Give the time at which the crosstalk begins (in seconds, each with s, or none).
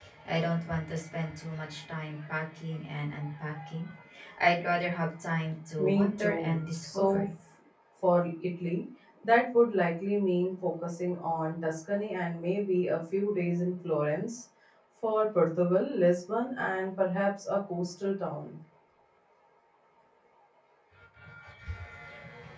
5.8 s